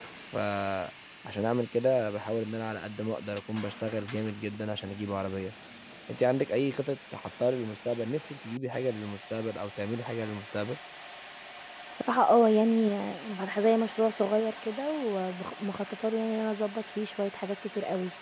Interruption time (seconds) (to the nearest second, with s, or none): none